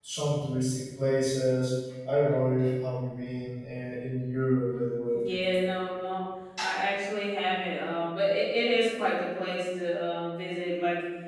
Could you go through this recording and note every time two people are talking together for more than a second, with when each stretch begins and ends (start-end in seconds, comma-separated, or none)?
none